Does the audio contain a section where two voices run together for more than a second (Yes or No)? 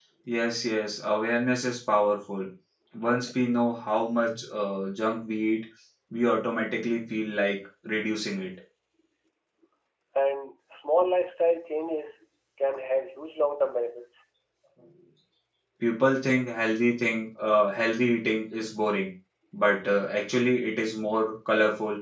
No